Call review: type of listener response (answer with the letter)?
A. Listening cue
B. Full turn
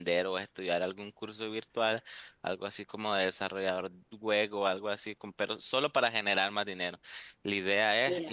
A